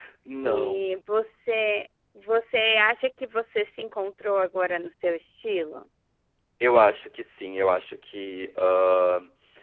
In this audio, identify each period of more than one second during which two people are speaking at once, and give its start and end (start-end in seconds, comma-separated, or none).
none